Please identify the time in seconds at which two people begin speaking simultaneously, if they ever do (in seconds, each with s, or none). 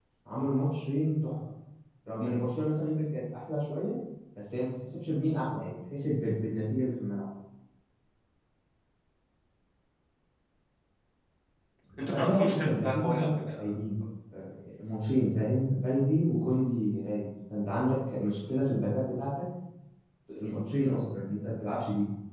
12.0 s